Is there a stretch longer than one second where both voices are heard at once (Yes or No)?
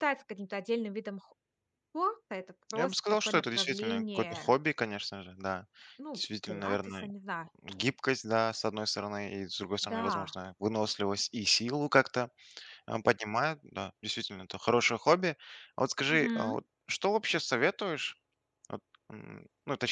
Yes